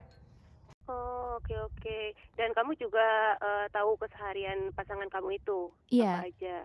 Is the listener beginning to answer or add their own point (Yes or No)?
Yes